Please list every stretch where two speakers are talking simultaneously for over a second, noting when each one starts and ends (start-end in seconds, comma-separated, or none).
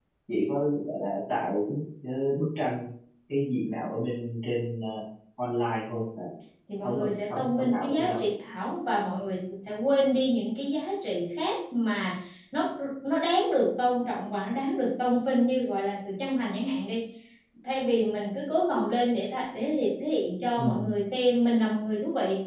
6.8-8.2